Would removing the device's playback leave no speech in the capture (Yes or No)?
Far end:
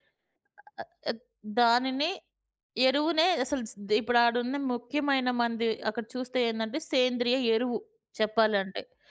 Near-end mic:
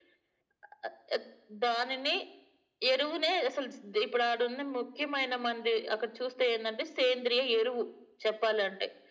Yes